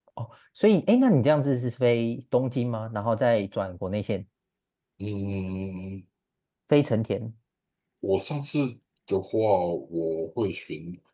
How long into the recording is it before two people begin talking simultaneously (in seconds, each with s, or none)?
none